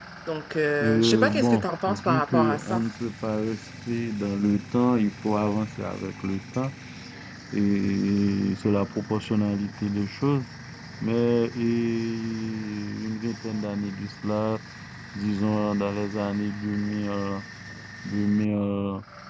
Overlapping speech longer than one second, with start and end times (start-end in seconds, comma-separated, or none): 0.8-2.8